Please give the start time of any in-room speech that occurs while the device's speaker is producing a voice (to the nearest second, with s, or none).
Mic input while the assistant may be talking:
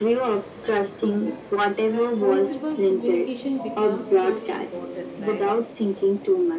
2 s